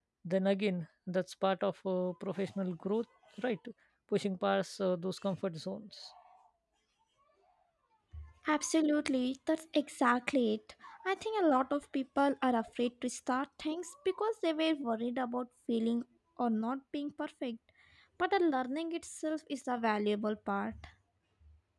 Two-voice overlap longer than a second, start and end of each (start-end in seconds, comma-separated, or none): none